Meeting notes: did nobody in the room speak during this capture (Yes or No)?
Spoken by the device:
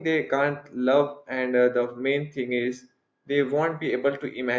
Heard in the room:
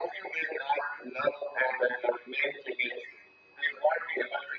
Yes